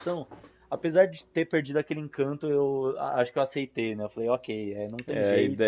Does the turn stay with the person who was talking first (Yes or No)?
No